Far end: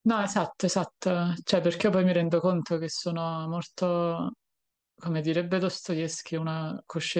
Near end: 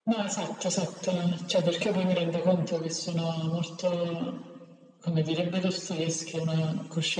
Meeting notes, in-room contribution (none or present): none